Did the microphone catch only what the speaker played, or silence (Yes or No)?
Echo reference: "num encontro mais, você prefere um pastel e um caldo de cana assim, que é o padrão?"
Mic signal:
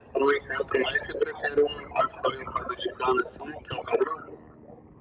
Yes